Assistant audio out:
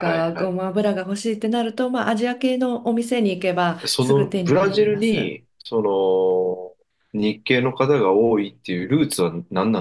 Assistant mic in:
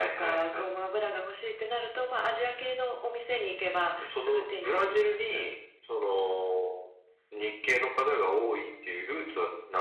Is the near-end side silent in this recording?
Yes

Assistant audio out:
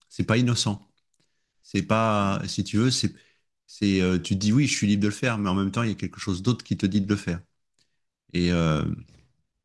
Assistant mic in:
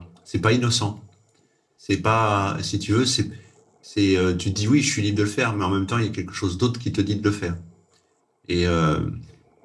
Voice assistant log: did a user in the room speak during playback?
No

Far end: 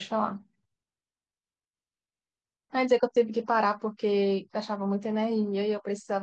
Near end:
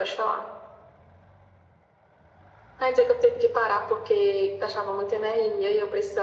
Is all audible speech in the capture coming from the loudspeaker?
Yes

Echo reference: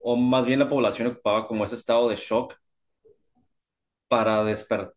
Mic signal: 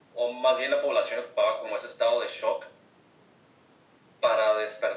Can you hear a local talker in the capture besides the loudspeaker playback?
No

